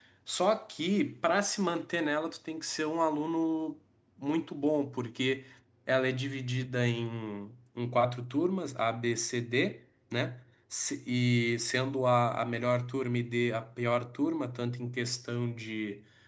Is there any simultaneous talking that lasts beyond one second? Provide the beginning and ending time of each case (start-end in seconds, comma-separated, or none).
none